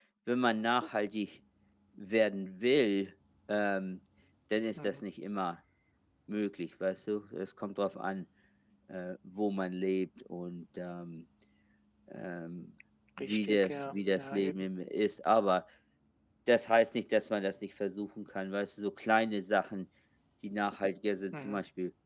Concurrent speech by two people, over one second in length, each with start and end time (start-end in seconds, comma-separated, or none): 13.2-14.5